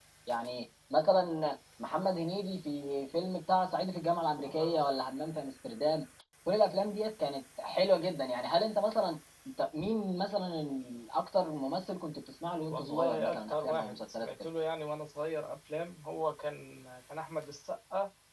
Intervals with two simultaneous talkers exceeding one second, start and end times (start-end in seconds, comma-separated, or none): 12.7-14.4